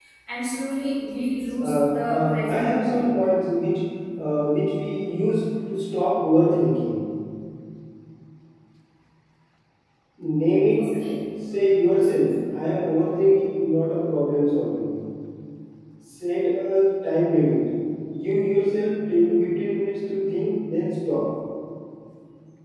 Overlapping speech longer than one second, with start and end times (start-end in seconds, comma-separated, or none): 1.6-3.1